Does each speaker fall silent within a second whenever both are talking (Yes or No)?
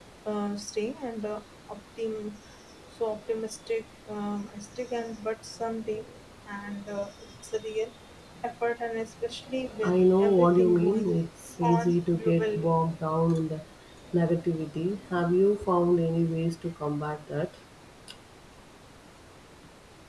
No